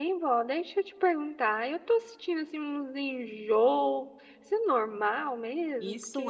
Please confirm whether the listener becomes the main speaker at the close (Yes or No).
Yes